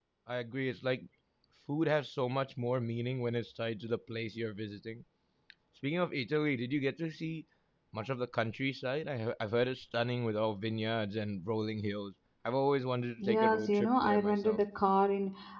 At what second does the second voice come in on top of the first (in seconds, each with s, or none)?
13.2 s